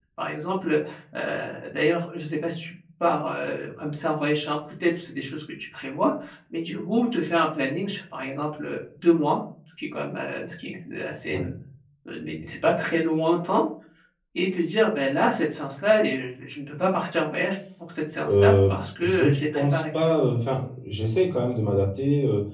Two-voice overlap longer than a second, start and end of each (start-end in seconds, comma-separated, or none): 18.2-19.8